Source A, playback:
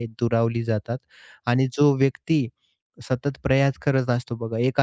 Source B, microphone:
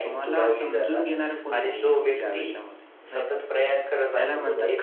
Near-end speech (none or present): present